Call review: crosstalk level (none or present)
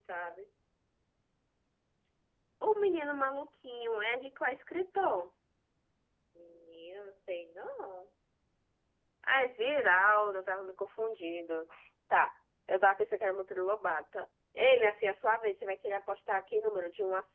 none